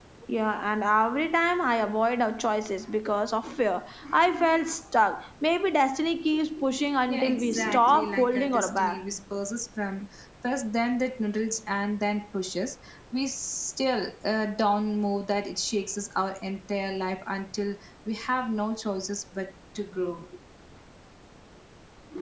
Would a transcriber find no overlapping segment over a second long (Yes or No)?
No